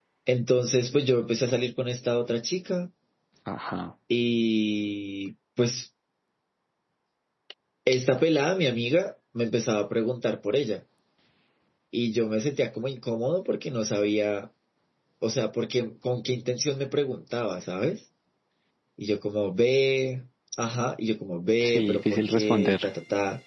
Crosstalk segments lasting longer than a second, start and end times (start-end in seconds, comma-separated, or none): 21.6-22.8